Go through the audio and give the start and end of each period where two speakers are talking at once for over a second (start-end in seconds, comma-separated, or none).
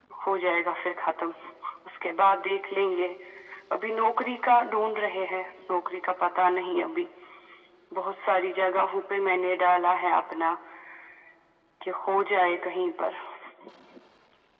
none